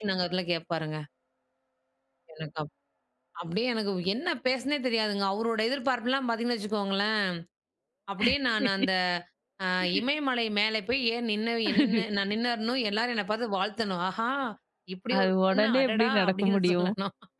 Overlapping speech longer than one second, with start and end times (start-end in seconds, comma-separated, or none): 15.2-16.9